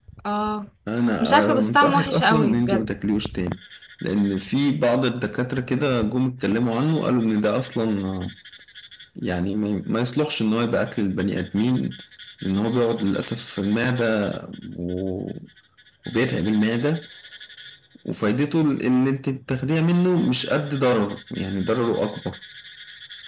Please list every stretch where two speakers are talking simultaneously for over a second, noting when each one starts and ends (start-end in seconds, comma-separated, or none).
1.2-2.8